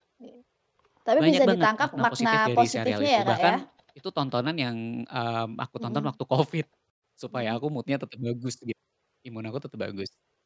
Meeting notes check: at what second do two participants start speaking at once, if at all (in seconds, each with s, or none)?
1.2 s